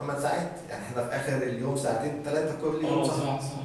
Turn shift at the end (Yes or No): Yes